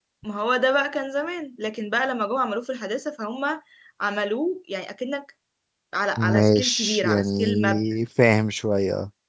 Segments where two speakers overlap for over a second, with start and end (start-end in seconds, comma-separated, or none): 6.2-7.8